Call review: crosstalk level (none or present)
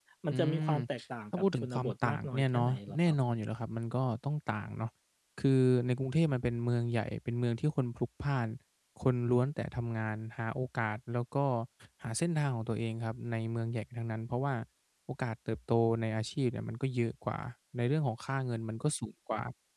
present